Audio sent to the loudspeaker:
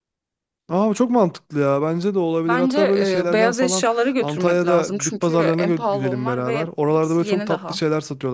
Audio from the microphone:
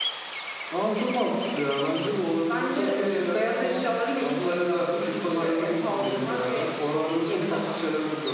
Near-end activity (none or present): none